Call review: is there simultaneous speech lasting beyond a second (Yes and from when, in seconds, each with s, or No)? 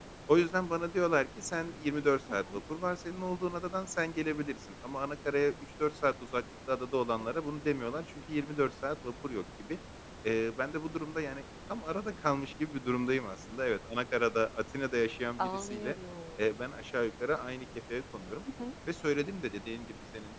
No